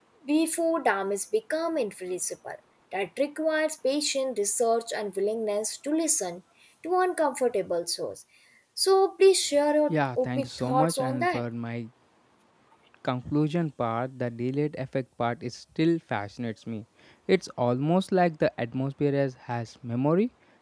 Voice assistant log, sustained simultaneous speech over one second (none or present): present